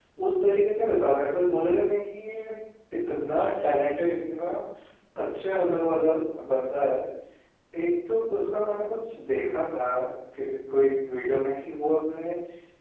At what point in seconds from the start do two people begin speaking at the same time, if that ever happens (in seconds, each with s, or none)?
none